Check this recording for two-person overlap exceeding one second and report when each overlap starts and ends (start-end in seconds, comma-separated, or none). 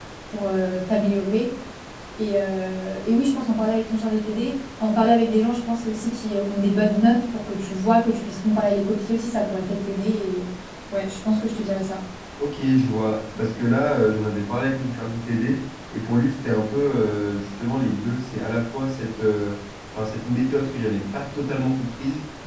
none